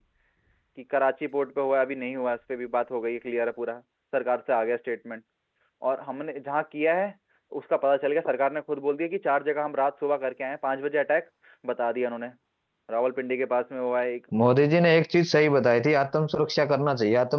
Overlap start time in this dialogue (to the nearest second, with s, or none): none